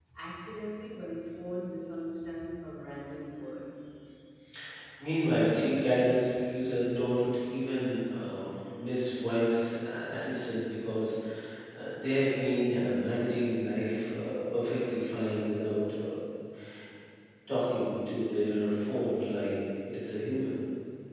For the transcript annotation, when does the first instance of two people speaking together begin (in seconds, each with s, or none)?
none